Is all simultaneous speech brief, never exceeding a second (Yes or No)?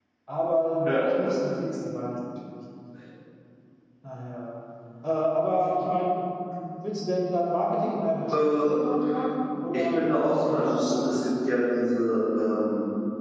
No